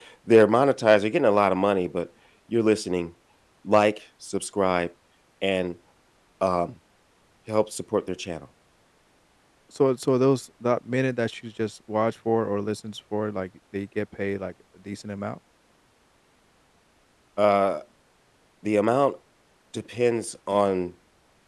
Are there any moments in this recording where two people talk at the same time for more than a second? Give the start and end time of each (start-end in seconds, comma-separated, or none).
none